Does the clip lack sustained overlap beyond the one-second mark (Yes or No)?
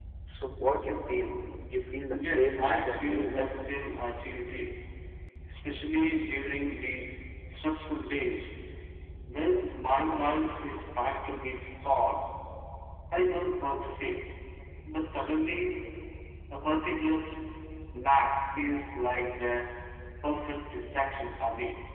No